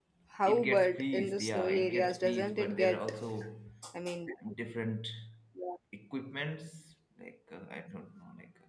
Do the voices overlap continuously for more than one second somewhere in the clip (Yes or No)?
Yes